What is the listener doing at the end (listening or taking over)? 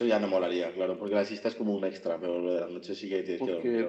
taking over